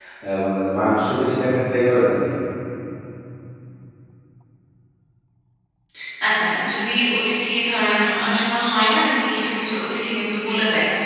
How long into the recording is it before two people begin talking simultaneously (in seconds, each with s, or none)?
none